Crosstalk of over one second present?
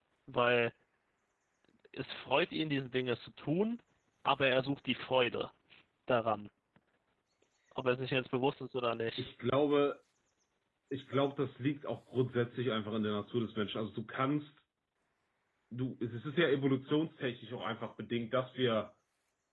No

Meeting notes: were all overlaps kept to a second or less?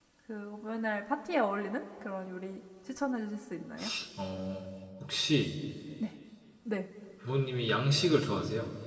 Yes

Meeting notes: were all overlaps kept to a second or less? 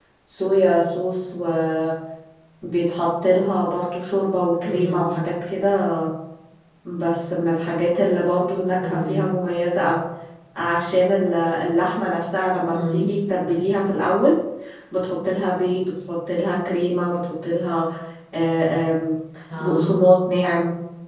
Yes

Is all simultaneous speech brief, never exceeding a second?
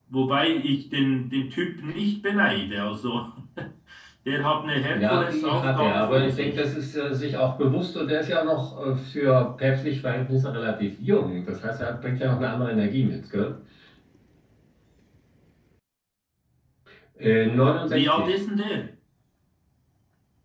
No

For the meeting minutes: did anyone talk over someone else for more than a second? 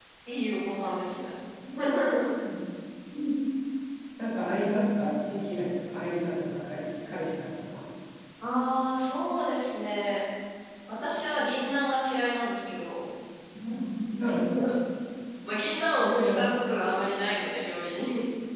No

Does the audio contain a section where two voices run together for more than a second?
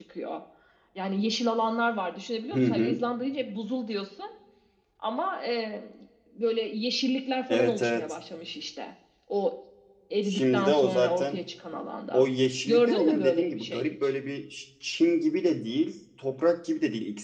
Yes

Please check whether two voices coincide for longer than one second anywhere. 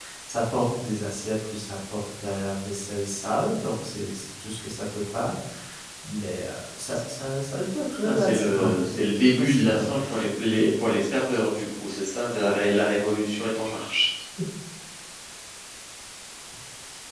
Yes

